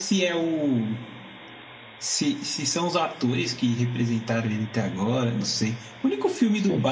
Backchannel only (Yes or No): Yes